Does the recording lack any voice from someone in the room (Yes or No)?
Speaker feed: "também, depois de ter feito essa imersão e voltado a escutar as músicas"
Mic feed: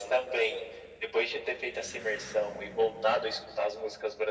Yes